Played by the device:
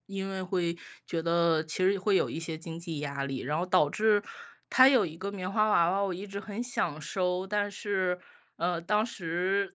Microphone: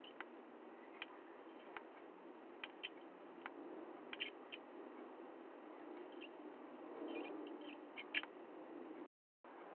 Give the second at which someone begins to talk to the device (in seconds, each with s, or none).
none